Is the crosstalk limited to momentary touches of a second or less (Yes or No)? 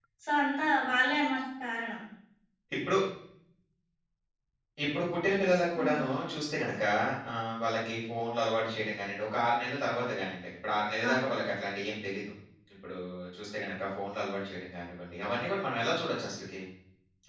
Yes